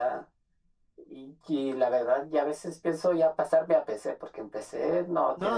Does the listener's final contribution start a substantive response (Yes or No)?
Yes